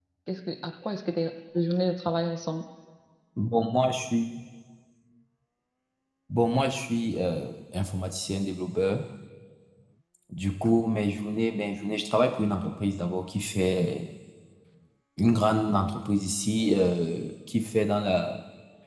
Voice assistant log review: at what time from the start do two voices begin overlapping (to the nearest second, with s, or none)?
none